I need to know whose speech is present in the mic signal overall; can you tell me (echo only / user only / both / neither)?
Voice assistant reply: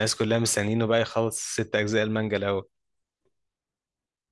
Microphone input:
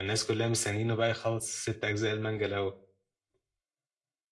echo only